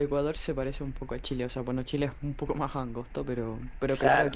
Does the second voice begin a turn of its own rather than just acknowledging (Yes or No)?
No